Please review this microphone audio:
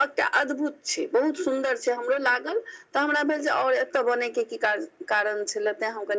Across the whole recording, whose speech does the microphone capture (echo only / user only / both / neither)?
echo only